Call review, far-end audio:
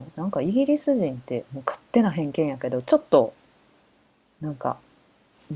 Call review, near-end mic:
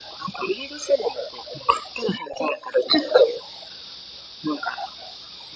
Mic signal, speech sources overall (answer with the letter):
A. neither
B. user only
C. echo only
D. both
C